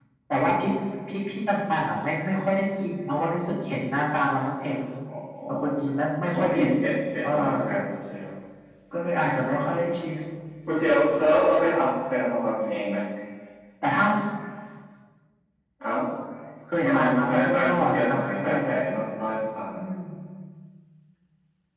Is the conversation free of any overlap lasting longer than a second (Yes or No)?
No